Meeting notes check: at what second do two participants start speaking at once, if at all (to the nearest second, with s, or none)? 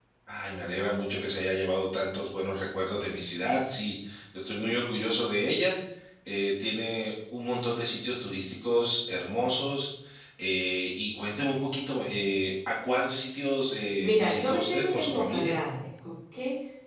14 s